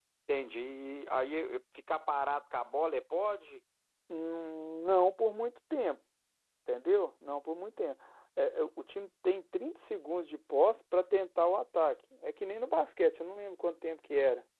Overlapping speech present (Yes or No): No